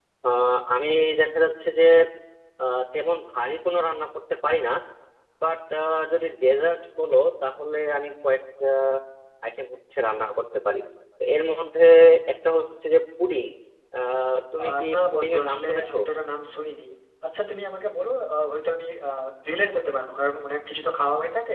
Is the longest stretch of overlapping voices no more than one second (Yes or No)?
No